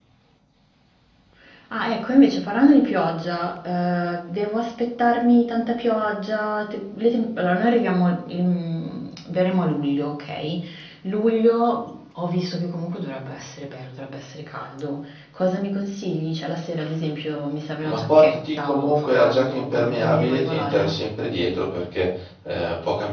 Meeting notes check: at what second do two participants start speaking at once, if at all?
18 s

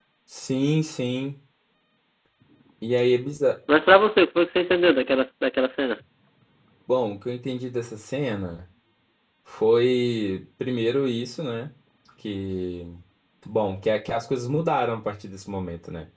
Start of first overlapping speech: none

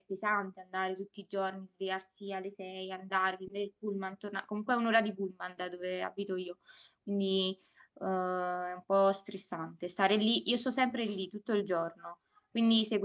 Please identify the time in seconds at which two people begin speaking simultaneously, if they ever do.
none

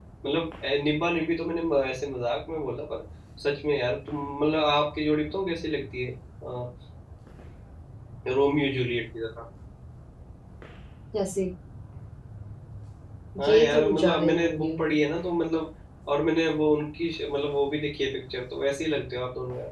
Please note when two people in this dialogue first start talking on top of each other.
13 s

